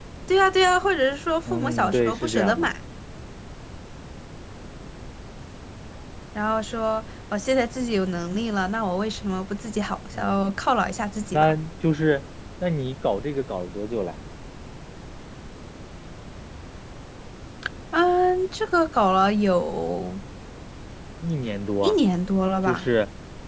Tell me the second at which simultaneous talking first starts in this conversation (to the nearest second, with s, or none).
2 s